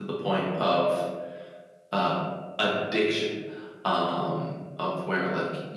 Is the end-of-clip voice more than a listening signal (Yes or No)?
No